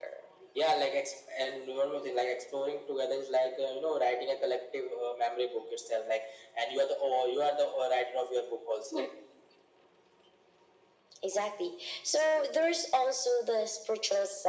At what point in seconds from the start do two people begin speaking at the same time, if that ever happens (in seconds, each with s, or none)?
none